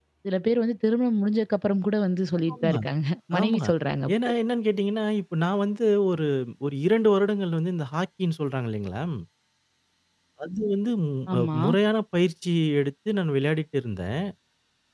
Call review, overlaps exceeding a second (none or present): none